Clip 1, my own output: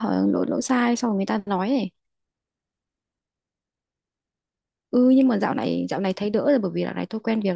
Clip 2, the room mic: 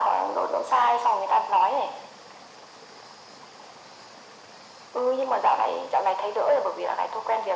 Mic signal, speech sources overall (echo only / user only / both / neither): echo only